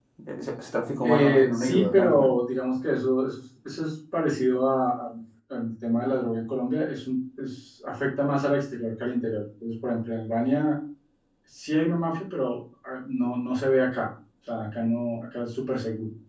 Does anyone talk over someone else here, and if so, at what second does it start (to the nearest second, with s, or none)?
1 s